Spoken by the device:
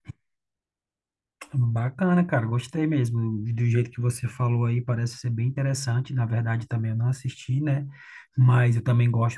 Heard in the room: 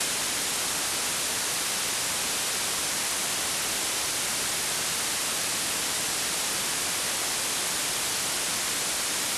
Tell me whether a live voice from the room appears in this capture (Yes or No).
No